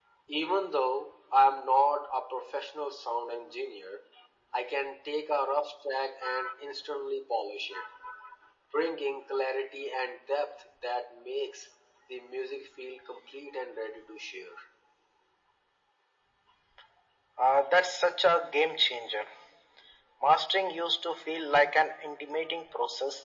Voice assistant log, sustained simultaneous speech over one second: none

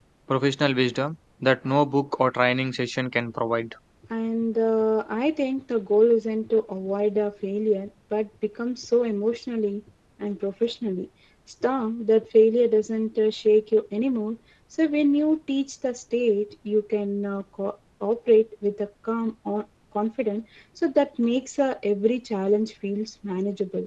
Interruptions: none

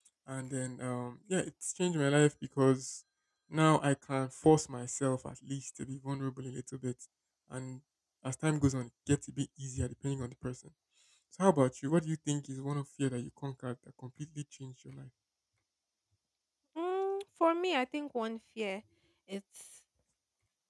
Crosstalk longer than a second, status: none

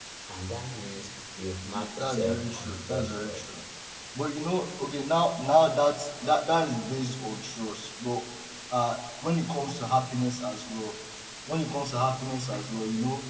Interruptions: present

